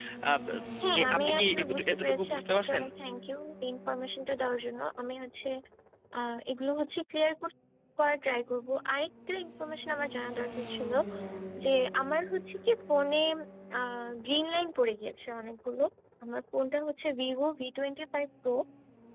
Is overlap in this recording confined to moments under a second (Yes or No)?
No